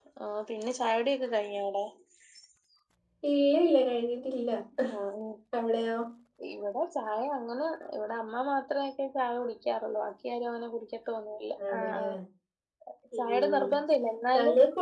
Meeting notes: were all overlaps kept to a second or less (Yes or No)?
Yes